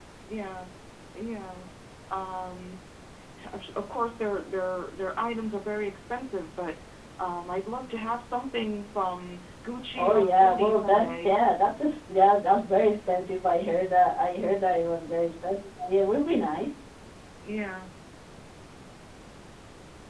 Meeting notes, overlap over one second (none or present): present